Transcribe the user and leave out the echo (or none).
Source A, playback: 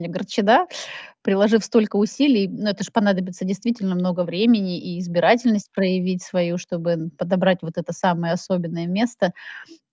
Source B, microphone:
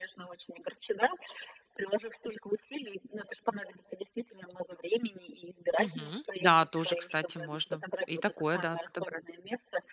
Мгм, да тоже, кстати, можно и такое, да, подобрать.